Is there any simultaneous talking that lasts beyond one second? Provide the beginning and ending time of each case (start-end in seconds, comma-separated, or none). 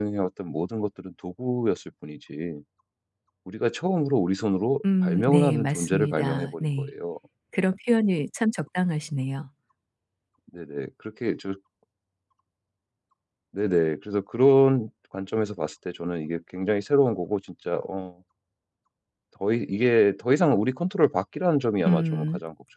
5.0-6.9